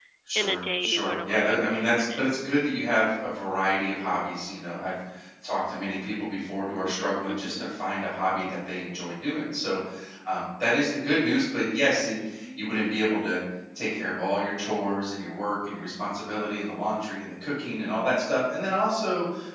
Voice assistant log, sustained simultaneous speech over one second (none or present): present